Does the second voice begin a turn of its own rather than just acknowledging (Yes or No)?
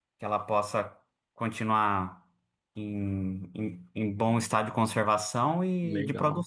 Yes